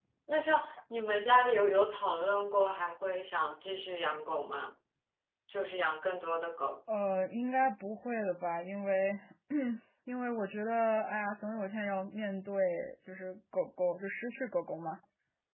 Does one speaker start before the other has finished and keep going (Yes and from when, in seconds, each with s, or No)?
No